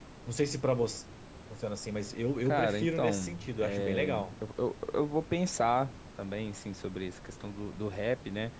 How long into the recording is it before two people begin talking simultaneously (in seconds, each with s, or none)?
2.5 s